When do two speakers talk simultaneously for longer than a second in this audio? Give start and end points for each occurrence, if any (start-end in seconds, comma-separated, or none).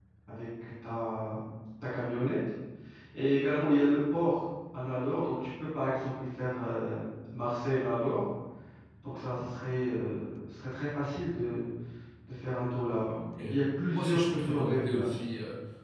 13.9-15.2